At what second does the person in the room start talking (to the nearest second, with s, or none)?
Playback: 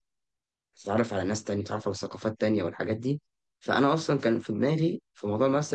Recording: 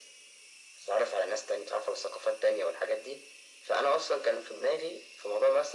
none